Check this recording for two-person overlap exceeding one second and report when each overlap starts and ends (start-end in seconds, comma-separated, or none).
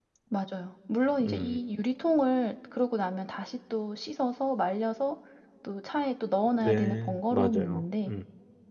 6.6-8.1